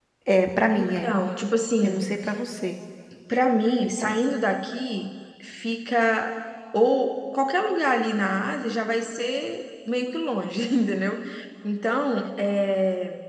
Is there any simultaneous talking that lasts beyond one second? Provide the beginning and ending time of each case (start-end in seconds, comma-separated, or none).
none